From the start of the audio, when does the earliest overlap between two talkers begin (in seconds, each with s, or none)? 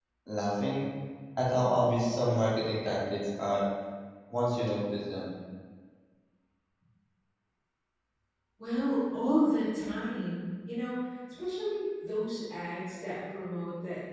none